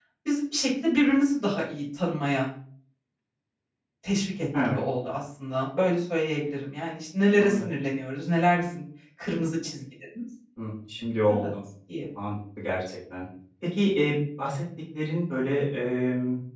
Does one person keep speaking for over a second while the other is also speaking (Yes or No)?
No